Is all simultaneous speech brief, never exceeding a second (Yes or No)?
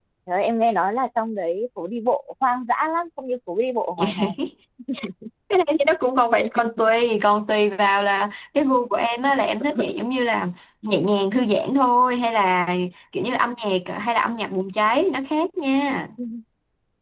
Yes